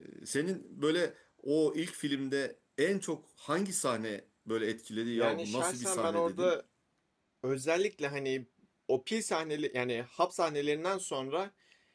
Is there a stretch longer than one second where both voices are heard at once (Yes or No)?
Yes